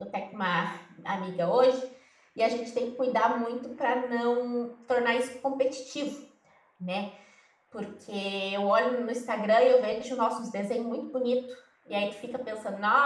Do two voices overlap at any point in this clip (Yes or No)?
No